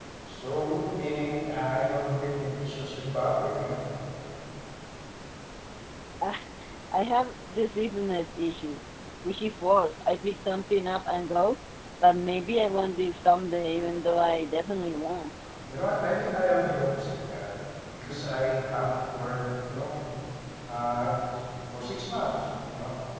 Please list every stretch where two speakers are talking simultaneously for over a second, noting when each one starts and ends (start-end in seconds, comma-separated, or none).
none